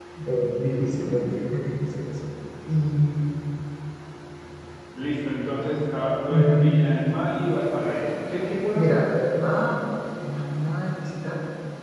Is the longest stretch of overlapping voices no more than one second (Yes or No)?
Yes